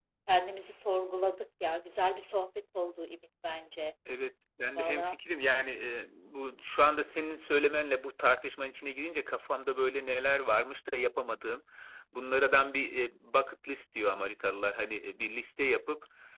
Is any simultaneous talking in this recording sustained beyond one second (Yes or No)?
No